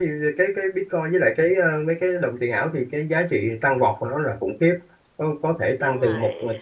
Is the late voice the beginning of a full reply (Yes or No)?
No